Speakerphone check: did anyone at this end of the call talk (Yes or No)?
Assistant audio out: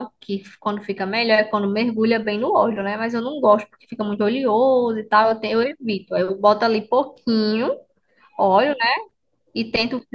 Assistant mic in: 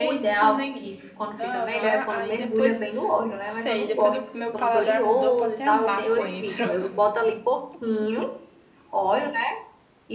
Yes